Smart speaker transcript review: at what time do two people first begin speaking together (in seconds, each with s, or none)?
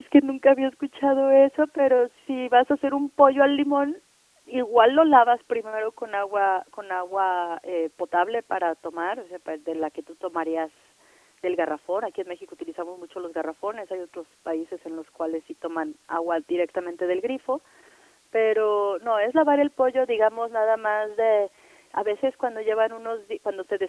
none